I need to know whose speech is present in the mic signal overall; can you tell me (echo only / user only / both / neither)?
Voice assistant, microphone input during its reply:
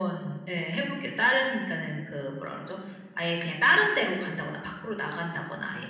echo only